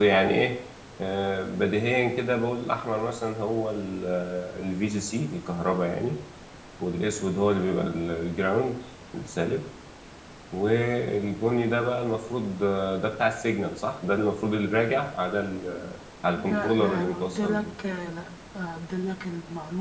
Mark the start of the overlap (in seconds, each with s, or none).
16.3 s